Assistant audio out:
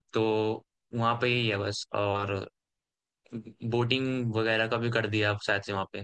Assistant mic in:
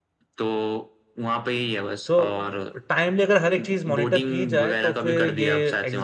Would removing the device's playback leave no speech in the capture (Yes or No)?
No